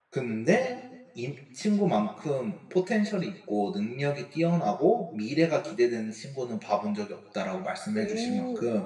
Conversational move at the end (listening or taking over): taking over